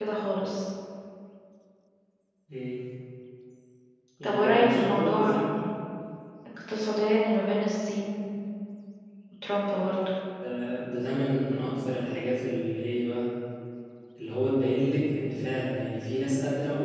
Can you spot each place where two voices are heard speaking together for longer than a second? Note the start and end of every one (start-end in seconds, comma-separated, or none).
4.2-5.5